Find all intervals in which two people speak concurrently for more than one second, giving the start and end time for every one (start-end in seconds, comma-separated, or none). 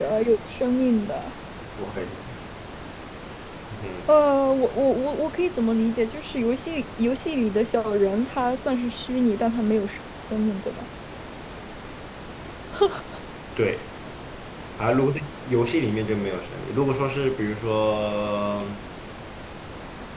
none